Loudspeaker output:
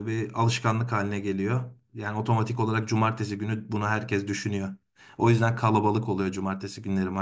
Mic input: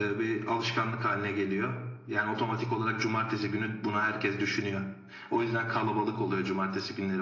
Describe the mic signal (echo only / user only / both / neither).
echo only